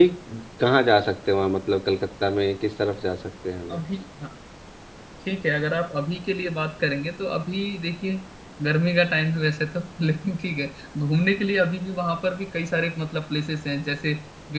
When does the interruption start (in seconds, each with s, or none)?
none